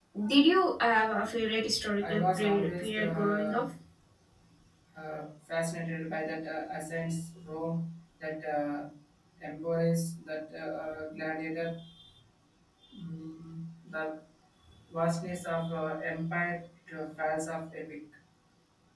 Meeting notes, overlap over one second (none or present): present